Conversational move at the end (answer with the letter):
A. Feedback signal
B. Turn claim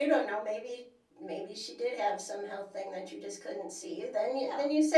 A